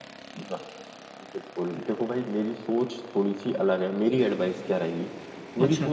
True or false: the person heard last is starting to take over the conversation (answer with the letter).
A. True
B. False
B